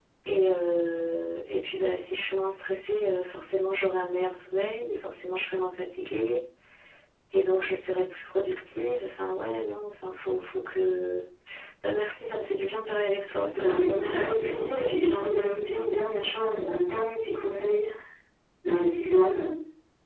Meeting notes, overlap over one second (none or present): present